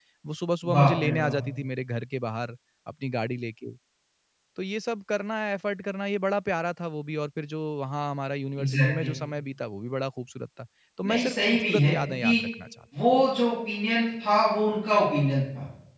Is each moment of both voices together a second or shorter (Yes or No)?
No